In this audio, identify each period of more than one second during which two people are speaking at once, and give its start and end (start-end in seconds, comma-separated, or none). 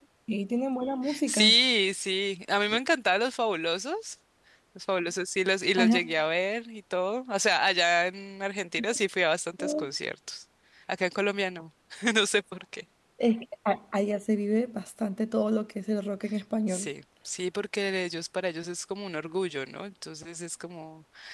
none